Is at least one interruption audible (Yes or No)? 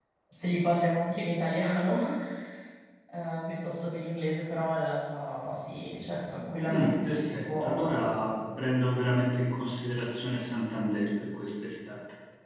Yes